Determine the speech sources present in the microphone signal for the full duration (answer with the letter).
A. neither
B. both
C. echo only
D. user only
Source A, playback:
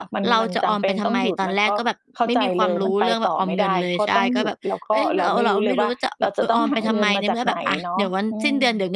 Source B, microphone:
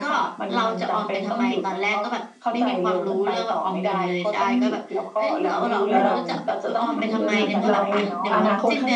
B